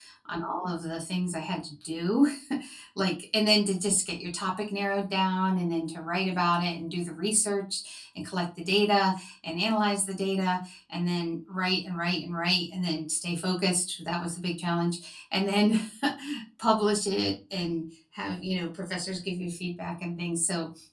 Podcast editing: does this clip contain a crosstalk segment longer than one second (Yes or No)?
No